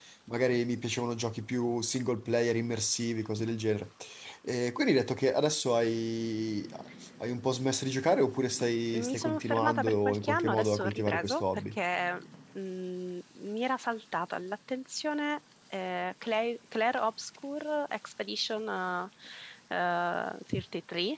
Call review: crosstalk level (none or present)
present